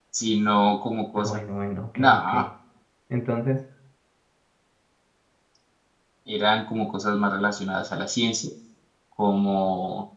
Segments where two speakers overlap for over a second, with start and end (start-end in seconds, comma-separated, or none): none